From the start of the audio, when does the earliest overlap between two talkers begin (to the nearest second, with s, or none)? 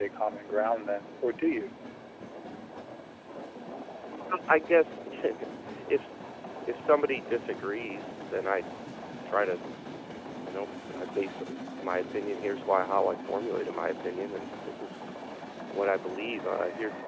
none